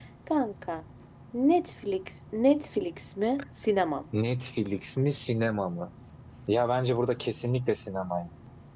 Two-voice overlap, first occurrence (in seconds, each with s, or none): none